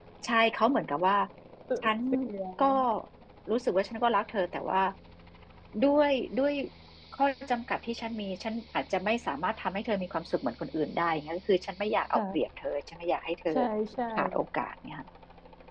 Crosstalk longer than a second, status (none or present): none